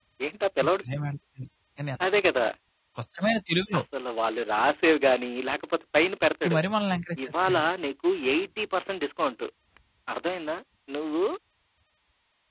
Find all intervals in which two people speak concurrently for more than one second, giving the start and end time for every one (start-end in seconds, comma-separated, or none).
none